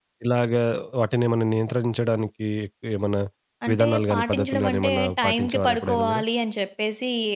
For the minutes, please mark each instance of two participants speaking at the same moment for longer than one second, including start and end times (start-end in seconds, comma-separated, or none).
3.7-6.2